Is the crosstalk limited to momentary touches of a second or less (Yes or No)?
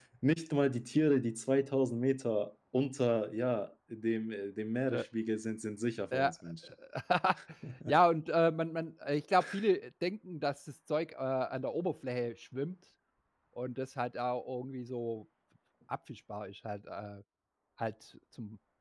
Yes